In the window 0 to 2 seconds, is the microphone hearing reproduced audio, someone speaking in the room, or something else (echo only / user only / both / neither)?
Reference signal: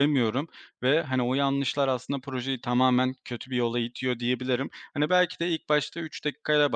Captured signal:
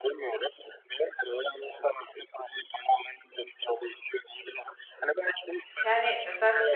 echo only